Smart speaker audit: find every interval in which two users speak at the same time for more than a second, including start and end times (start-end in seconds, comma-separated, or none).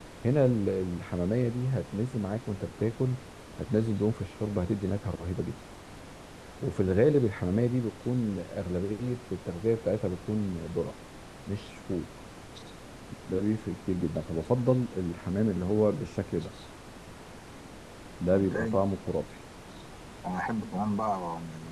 none